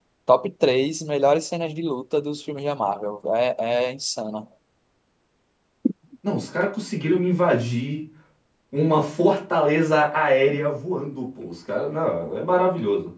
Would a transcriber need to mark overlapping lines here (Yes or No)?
No